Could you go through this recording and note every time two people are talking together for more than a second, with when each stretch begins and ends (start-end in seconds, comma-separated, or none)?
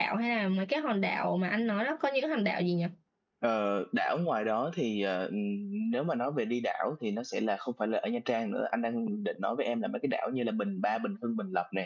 none